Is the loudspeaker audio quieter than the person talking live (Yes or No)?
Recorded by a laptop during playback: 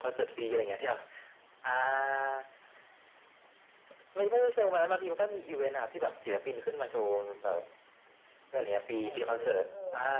No